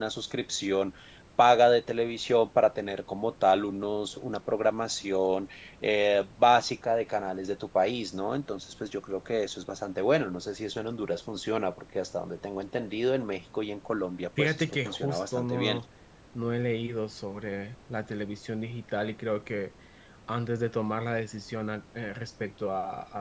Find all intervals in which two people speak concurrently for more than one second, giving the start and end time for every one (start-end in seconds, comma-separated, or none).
14.4-15.8